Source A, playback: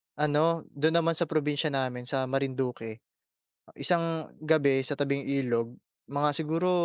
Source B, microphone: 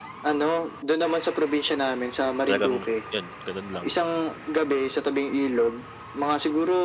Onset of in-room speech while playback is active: 2 s

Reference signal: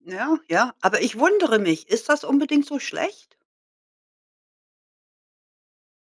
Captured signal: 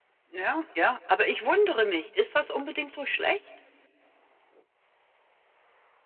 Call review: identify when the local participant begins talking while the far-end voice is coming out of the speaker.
none

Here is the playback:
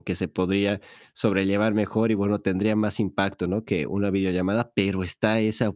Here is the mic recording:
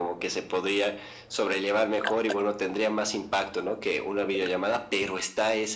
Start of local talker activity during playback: none

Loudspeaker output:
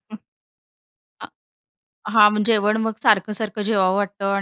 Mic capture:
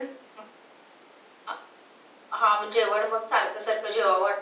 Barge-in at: none

